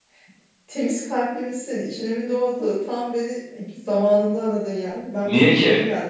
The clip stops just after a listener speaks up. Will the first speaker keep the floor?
Yes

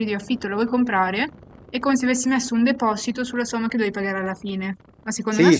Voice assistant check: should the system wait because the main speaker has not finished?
No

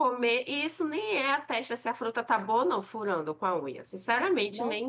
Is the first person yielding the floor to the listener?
Yes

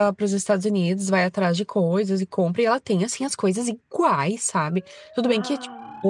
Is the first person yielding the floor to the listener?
No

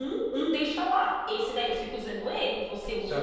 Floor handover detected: Yes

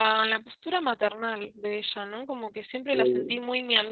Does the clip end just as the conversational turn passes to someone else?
No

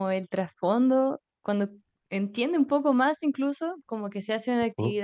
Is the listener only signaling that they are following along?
Yes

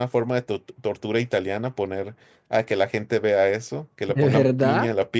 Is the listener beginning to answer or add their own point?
No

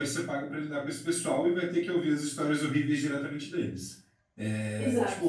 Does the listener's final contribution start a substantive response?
No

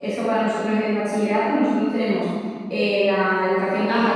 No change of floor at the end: No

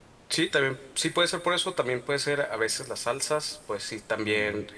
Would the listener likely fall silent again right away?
Yes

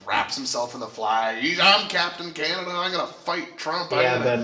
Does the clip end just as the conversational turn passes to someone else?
Yes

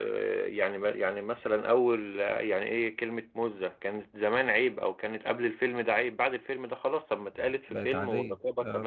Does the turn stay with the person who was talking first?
Yes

